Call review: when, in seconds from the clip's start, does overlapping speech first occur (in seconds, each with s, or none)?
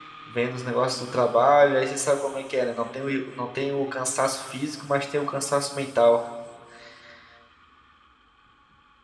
none